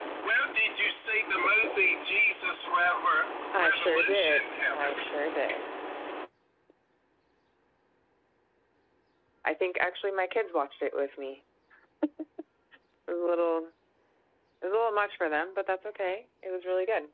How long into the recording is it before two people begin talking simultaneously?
3.5 s

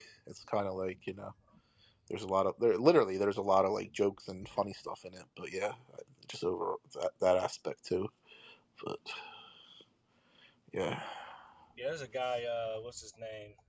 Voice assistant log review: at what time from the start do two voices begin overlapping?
none

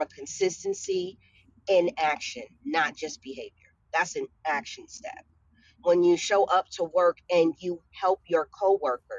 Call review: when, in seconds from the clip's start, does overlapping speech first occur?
none

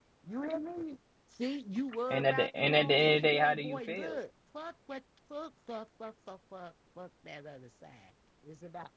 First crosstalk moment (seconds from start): 2.1 s

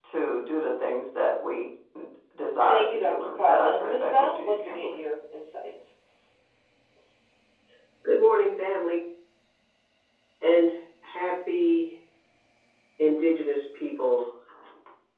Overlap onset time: 2.7 s

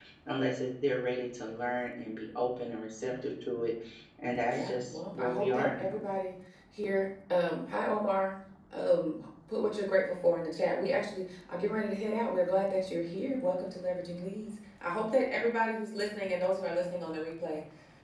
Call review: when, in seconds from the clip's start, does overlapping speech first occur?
4.5 s

